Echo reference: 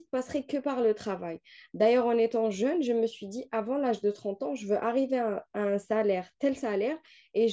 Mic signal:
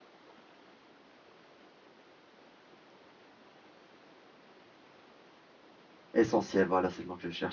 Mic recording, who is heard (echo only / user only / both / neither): user only